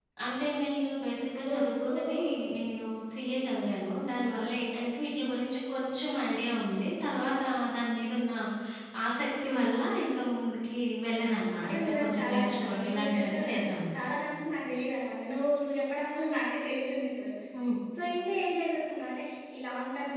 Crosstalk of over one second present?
Yes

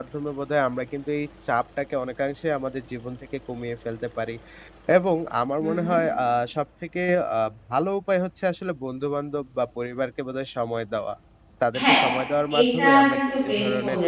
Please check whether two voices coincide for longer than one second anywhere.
Yes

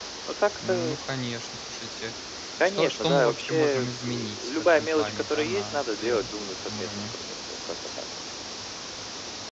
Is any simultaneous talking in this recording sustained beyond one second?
Yes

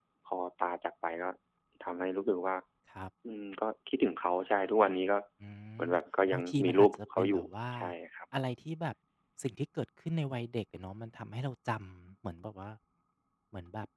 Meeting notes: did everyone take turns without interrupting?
No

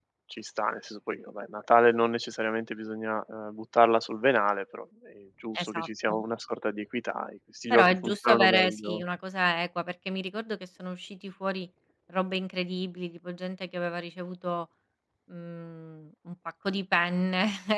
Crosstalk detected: Yes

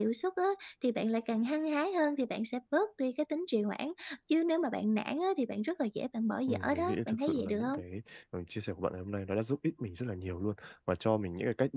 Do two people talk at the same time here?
Yes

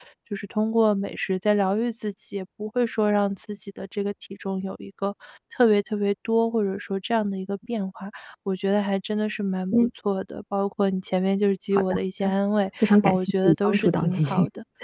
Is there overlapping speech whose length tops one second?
Yes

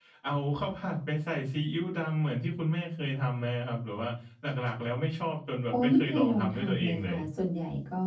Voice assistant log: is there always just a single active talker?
No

